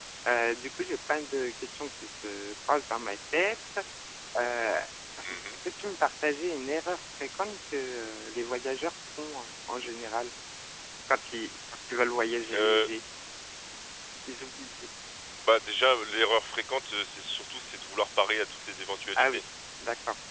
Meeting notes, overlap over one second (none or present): none